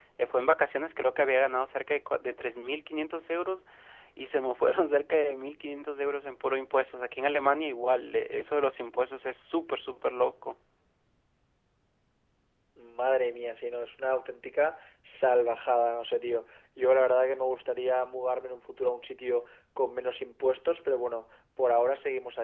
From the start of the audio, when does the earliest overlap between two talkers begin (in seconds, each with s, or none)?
none